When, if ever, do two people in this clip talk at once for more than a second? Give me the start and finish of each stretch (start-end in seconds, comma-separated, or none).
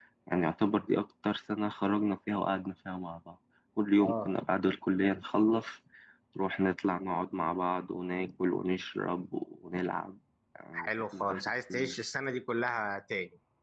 10.7-11.9